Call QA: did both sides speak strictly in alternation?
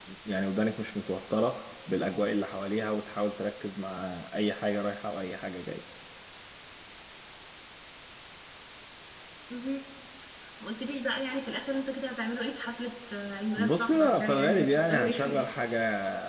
No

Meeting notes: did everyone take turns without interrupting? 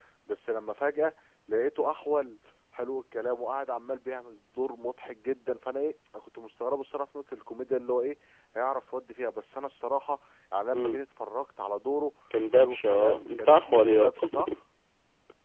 No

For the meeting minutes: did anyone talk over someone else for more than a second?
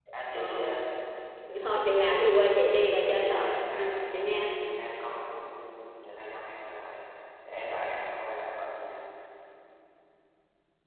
Yes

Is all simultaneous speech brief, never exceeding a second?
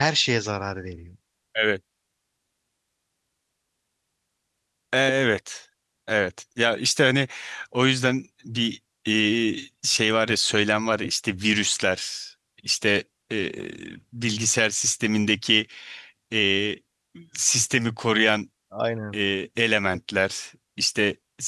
Yes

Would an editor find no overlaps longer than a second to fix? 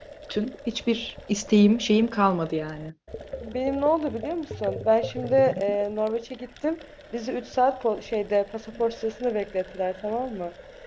Yes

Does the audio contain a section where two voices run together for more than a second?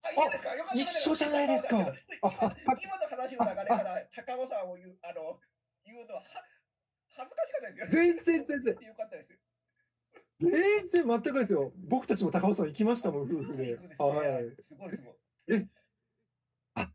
Yes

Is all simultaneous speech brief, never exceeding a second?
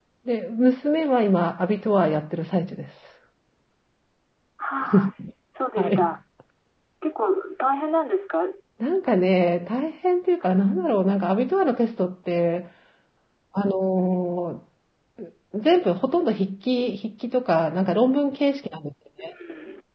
Yes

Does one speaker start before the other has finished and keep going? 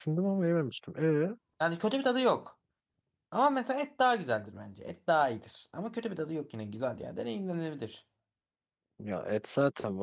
No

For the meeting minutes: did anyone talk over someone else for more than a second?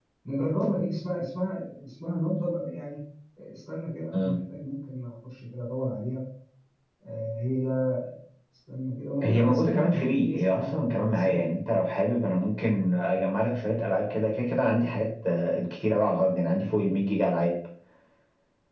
Yes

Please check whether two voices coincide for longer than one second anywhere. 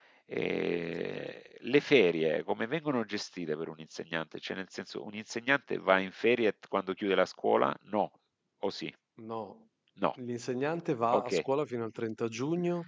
No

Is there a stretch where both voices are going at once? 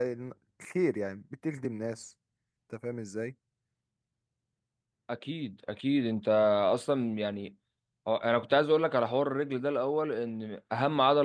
No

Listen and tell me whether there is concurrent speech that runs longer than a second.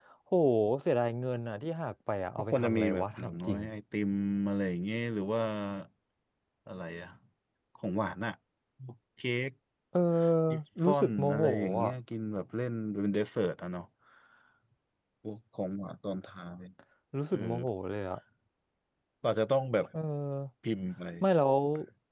Yes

